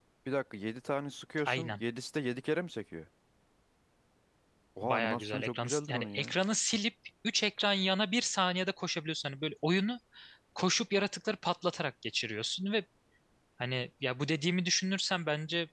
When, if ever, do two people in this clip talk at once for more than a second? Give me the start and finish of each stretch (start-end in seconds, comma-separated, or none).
4.8-6.3